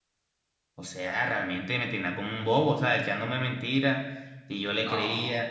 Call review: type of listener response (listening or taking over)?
listening